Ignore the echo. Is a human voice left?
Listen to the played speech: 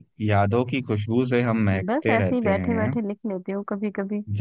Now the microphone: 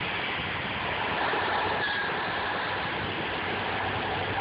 No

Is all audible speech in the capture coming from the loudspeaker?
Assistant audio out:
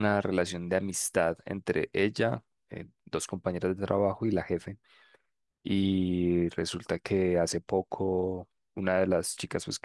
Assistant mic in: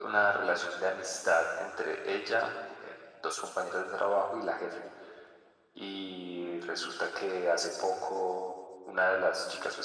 Yes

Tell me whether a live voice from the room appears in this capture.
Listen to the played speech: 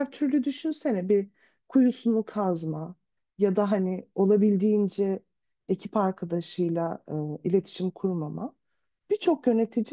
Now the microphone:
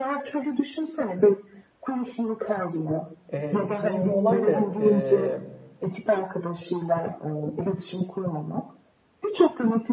Yes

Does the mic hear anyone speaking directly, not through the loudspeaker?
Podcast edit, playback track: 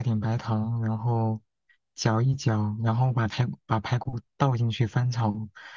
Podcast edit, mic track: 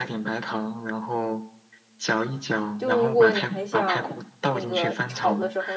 Yes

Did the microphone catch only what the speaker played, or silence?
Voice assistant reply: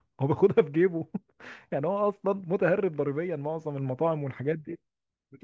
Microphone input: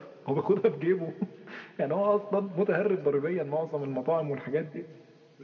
Yes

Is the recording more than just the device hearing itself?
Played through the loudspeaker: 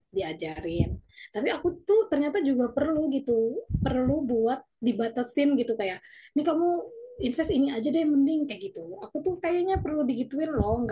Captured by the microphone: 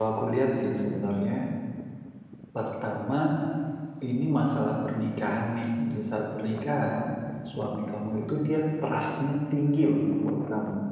Yes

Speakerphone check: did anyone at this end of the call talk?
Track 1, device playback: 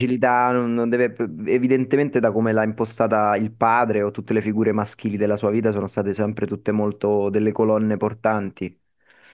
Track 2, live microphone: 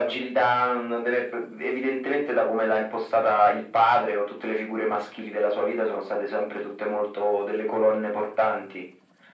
No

